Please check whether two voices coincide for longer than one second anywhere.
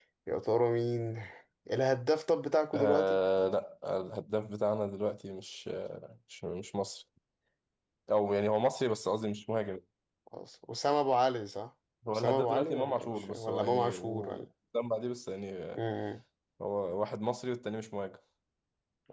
Yes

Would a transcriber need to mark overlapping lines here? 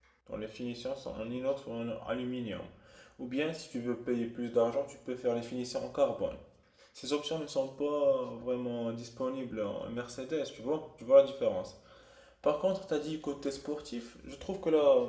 No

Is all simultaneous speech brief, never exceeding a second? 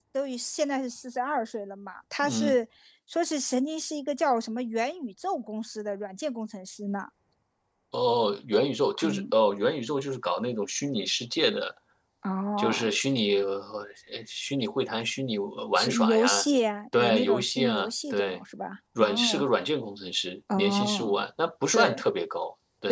No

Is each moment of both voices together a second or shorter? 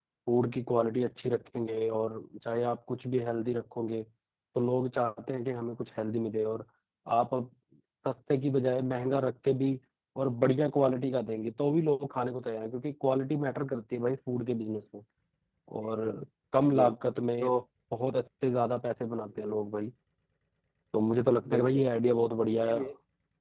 Yes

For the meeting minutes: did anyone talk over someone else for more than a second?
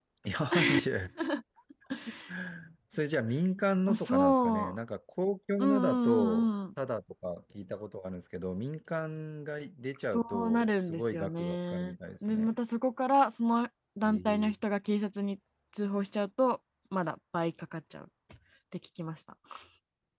Yes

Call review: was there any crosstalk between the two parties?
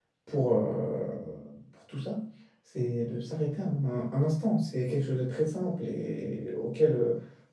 No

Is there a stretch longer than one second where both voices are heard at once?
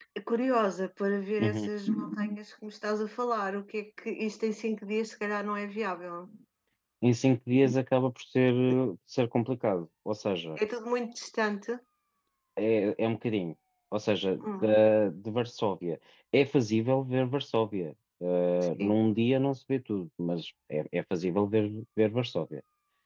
No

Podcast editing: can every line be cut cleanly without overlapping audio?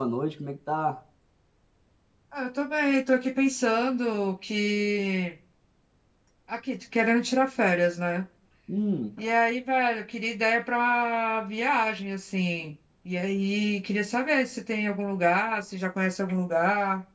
Yes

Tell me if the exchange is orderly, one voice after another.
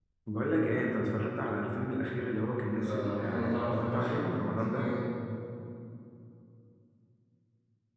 No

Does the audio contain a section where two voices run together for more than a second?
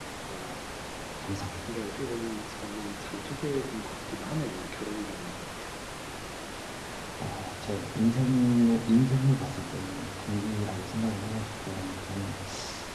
No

